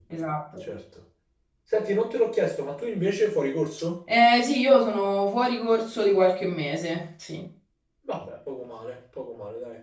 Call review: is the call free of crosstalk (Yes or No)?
Yes